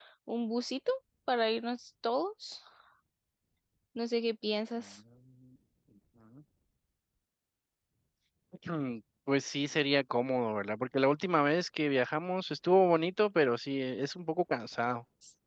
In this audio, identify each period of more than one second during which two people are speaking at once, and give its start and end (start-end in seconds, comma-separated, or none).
none